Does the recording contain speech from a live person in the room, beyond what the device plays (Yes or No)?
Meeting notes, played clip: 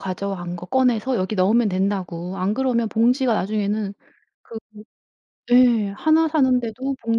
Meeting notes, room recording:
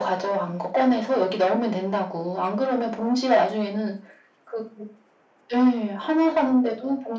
No